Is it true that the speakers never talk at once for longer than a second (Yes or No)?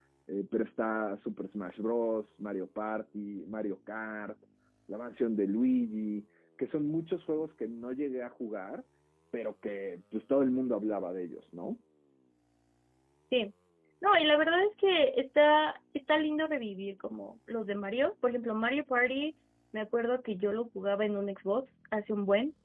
Yes